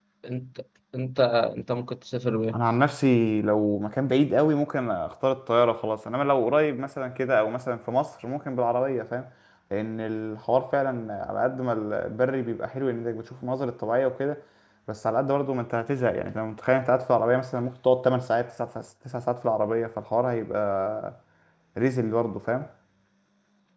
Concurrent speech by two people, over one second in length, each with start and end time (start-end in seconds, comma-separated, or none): none